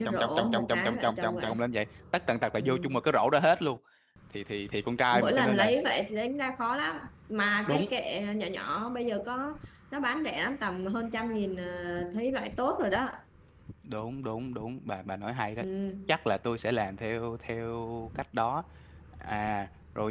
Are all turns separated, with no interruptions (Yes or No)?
No